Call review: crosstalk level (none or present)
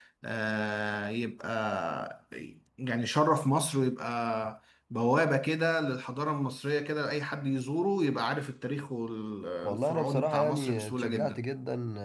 present